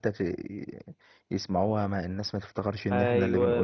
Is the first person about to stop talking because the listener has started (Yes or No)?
Yes